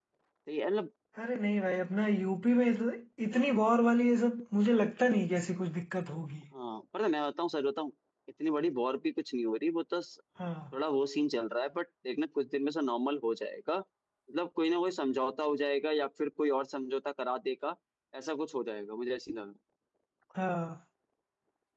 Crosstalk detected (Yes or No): No